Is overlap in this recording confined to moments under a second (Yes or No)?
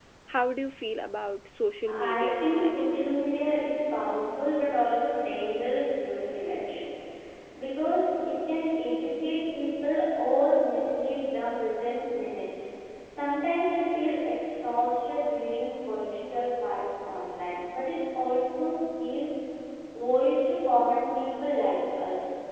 No